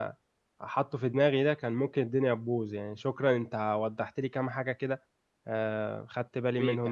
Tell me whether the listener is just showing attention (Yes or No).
No